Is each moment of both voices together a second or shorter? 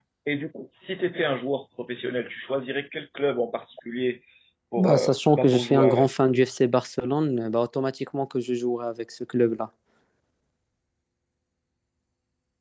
No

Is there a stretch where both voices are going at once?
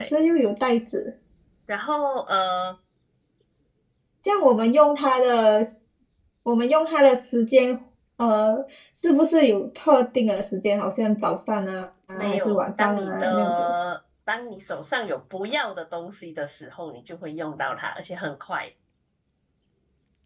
Yes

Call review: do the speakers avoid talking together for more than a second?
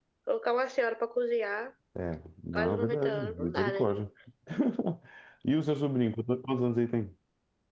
No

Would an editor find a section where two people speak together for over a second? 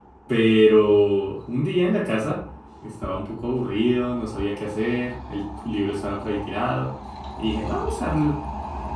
No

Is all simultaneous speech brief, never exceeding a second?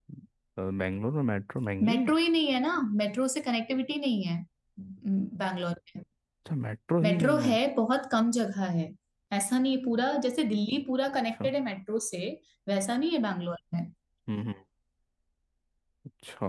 Yes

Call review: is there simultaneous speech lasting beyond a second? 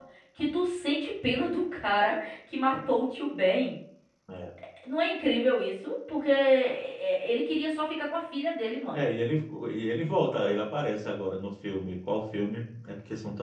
No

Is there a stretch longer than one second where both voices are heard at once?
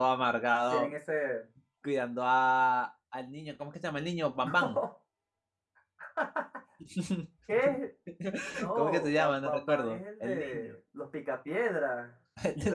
Yes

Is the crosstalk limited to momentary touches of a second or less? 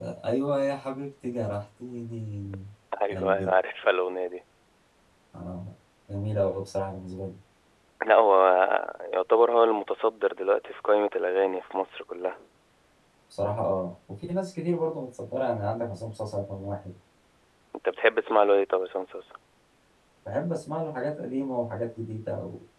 Yes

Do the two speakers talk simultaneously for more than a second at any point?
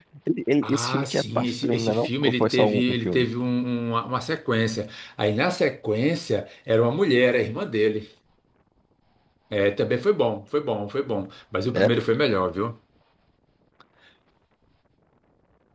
Yes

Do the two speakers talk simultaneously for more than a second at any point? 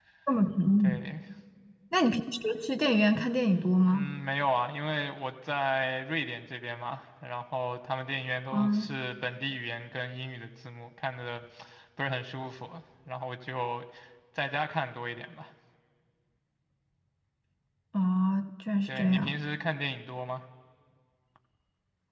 No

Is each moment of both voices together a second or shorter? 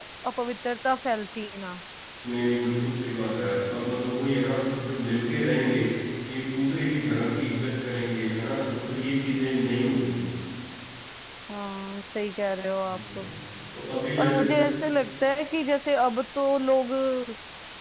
Yes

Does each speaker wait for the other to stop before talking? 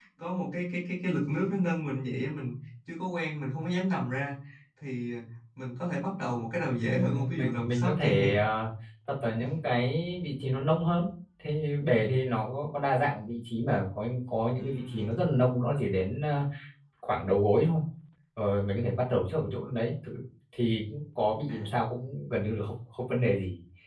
No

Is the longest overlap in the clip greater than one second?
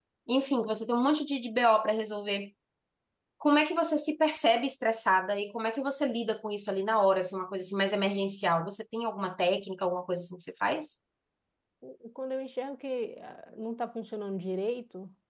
No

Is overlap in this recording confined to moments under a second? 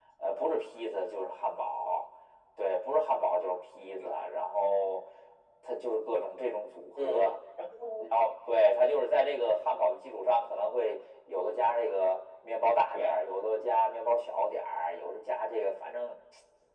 Yes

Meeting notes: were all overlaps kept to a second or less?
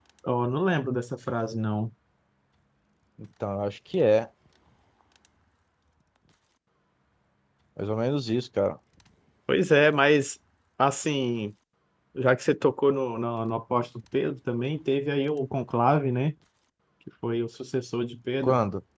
Yes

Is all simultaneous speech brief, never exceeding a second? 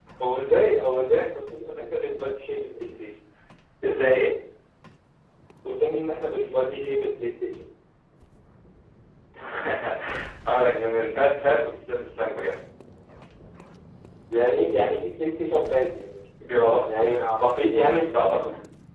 Yes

